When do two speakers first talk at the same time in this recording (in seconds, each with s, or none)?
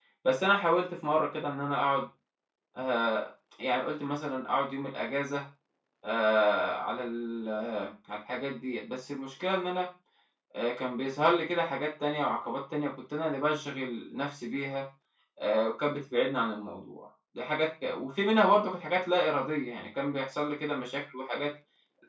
none